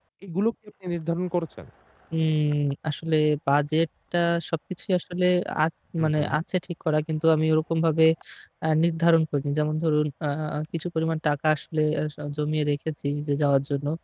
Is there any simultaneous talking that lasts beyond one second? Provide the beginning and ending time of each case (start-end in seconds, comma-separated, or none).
none